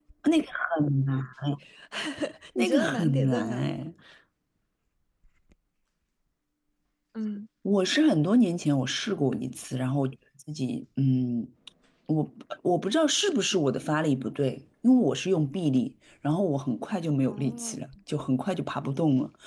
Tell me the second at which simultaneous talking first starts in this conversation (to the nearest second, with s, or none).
3 s